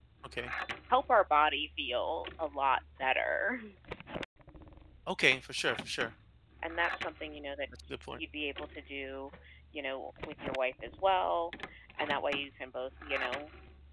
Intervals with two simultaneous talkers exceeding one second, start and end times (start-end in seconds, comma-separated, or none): none